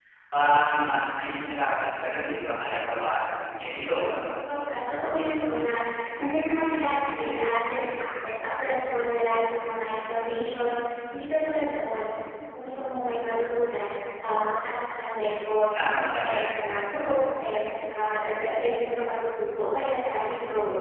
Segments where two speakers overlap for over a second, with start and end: none

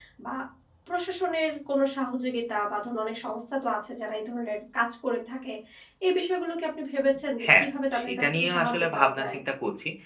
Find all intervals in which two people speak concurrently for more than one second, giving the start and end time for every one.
7.5-9.4

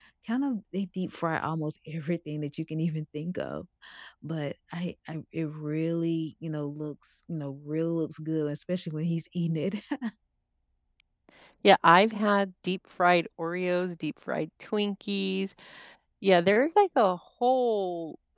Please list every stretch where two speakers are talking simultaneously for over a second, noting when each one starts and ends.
none

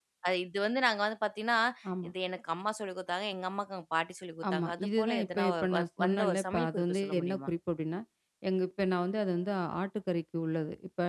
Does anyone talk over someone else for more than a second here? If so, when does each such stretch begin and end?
4.5-7.5

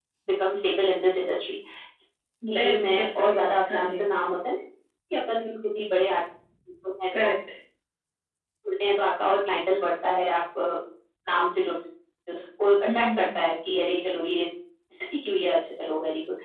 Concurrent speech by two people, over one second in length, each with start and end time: 2.5-4.0

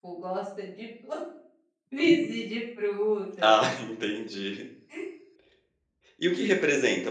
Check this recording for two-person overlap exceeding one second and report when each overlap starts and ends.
none

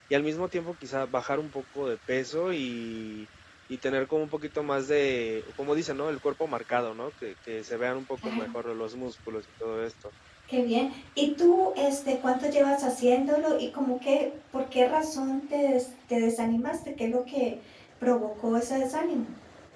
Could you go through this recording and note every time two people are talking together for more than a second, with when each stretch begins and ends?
none

